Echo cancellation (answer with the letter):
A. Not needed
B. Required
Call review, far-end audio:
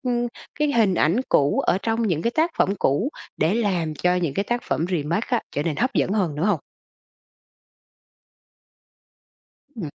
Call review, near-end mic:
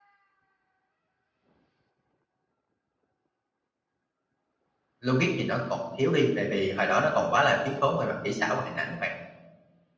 A